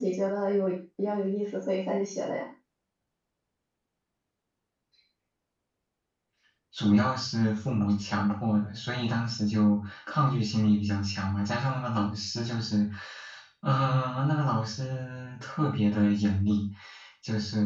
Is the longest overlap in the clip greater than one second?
No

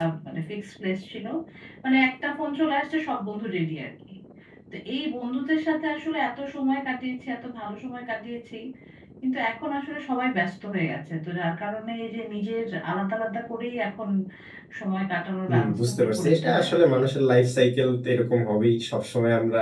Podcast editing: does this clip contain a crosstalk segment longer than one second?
Yes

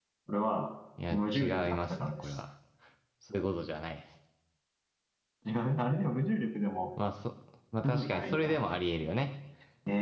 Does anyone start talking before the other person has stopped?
Yes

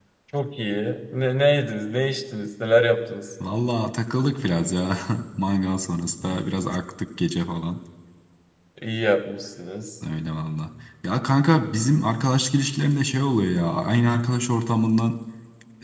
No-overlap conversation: Yes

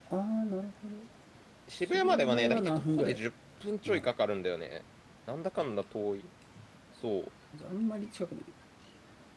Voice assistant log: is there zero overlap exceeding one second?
No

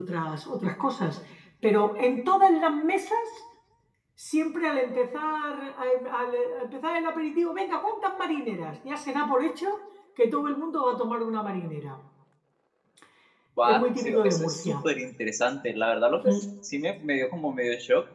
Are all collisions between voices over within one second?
No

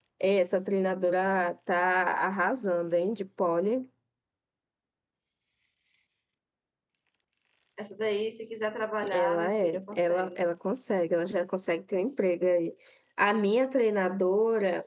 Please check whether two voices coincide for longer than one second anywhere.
Yes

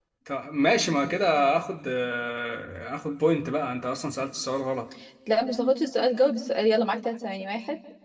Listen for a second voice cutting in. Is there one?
No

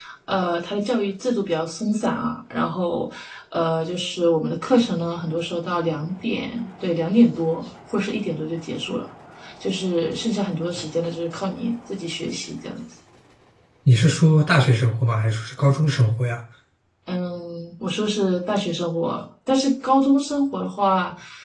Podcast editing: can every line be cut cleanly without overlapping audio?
Yes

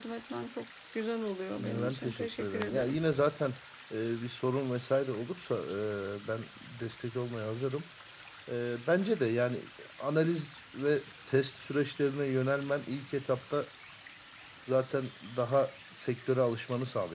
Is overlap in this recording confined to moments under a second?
No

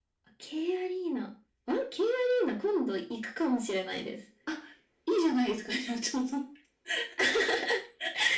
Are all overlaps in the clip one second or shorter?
Yes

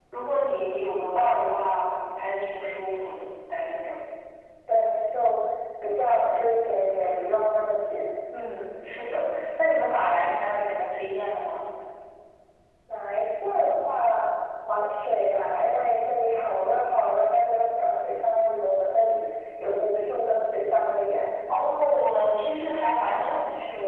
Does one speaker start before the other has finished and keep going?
No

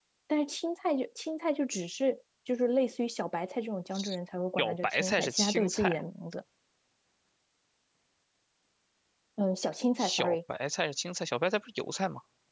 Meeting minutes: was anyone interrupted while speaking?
Yes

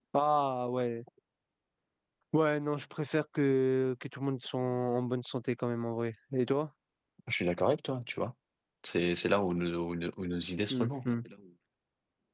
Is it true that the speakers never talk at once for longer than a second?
Yes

